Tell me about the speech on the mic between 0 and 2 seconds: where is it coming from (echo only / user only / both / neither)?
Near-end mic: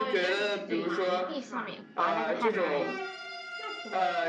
both